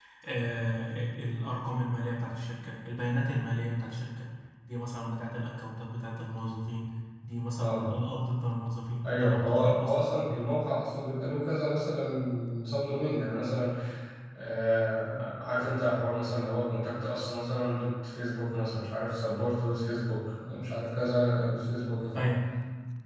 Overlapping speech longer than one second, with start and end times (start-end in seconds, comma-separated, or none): 9.0-10.3